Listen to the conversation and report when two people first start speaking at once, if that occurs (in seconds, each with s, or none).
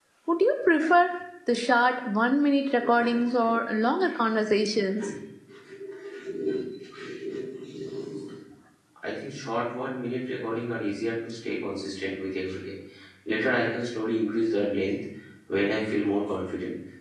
none